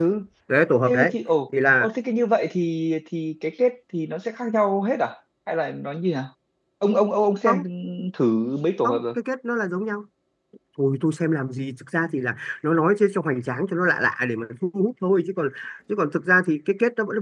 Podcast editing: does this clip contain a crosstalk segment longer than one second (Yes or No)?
No